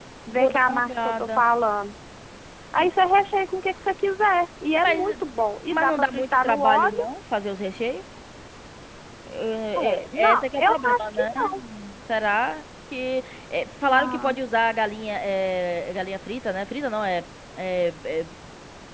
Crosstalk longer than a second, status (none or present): present